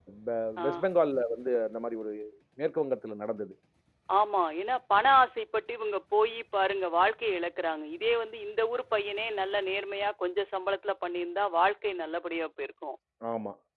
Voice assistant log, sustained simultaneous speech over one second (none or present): none